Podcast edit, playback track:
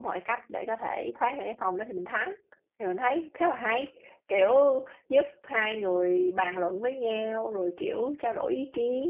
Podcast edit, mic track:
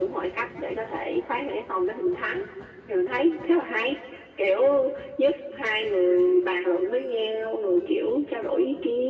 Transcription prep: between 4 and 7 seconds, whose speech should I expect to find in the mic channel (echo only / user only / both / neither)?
echo only